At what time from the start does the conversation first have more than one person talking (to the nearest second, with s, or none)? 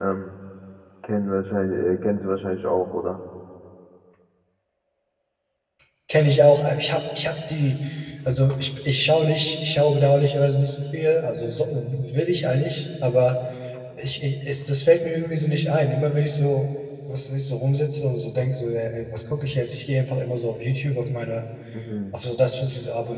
none